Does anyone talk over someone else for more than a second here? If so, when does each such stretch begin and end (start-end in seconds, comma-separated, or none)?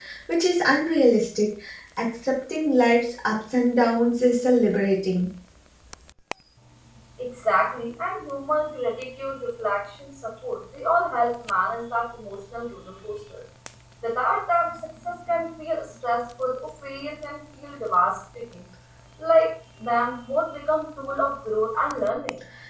none